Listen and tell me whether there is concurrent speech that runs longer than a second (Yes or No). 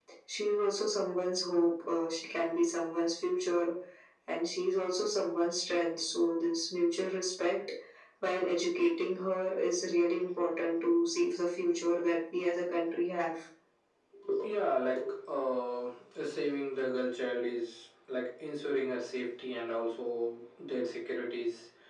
No